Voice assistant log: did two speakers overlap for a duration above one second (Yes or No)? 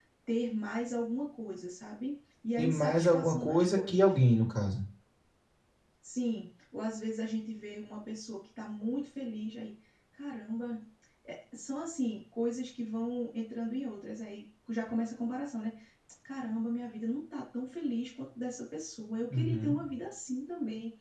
Yes